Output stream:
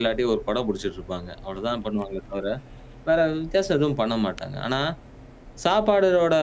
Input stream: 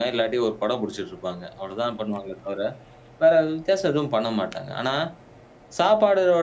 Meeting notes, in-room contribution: none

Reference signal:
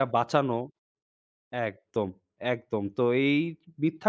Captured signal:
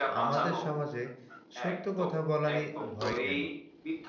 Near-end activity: present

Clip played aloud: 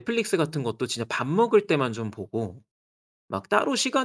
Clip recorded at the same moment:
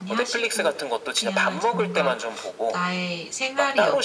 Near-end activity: present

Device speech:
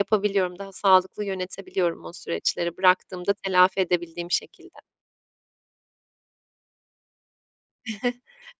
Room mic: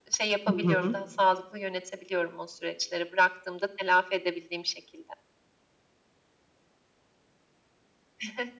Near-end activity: present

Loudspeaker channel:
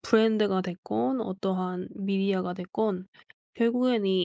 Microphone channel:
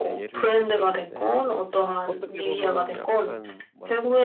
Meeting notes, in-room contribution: present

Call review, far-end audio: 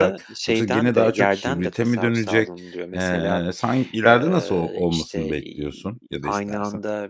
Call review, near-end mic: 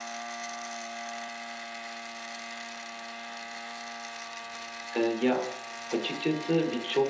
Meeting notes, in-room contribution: present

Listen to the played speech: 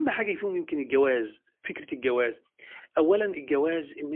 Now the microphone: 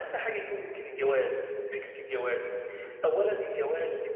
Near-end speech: none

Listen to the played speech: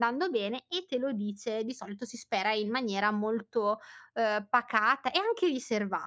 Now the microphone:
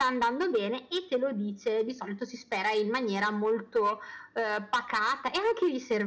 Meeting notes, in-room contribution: none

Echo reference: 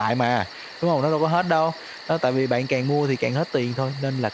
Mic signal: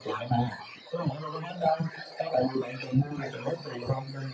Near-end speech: none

